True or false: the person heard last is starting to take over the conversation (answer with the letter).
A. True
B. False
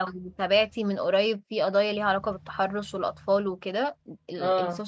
B